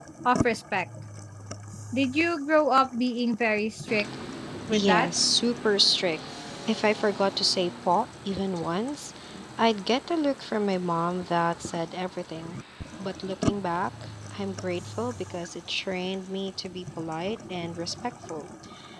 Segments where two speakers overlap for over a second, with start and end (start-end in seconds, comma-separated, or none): none